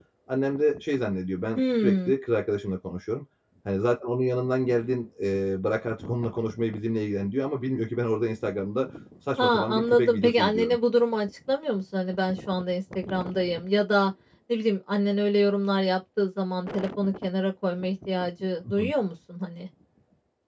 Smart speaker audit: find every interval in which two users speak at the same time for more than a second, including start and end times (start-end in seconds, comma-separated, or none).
9.4-10.8